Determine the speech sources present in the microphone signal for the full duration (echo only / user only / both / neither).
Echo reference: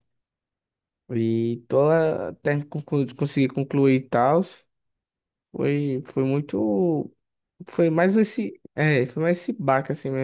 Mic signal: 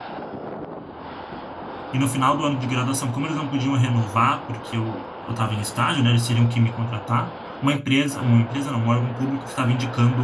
user only